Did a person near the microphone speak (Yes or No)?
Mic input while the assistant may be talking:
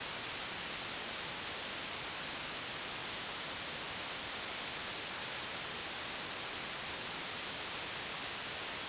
No